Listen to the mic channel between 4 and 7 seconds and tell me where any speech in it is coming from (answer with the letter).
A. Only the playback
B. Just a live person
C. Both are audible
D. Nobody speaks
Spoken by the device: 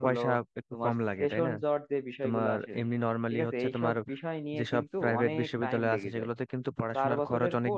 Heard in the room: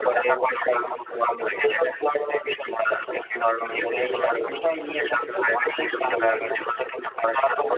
A